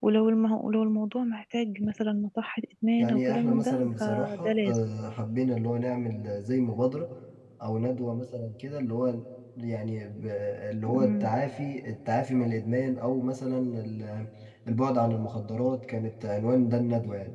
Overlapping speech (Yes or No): Yes